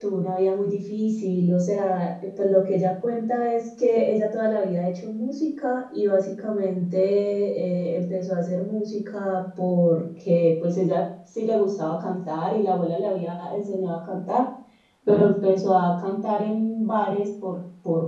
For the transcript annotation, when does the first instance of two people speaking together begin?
none

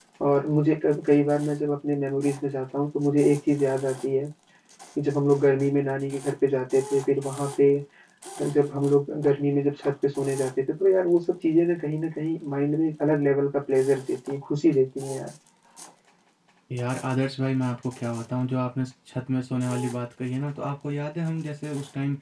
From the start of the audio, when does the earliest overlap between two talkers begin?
none

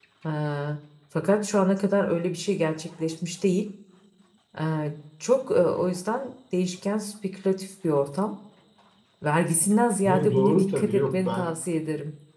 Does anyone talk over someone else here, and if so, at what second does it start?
10.1 s

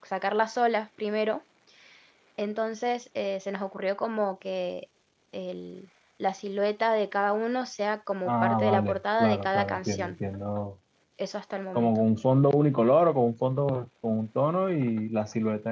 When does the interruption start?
8.2 s

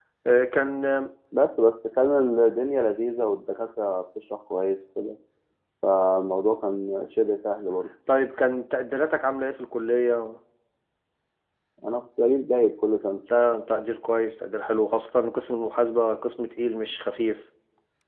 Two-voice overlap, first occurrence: none

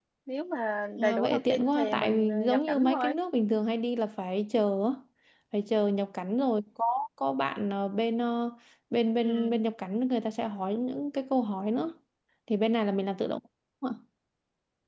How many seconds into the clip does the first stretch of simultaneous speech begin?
1.0 s

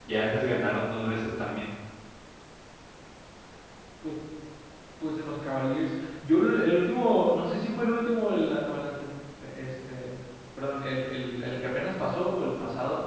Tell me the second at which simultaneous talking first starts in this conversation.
none

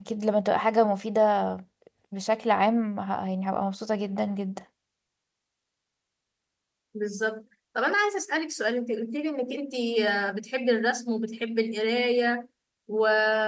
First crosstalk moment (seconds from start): none

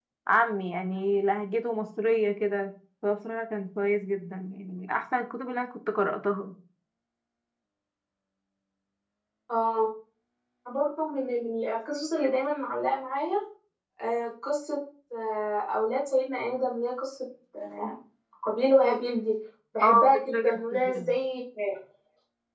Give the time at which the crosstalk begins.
19.8 s

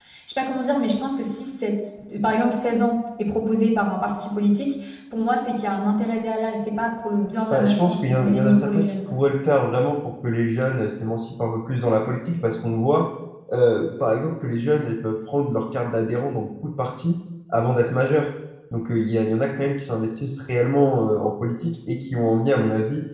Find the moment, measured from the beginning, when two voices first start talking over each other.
7.5 s

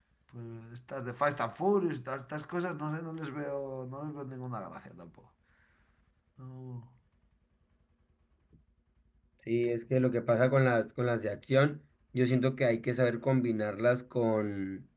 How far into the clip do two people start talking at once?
none

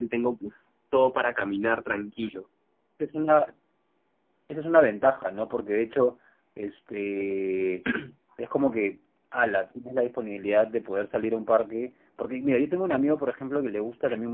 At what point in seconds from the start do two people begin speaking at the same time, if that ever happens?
none

